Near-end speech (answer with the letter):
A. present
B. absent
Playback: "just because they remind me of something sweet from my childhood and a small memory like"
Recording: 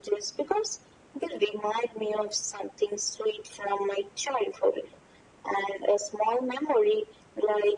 B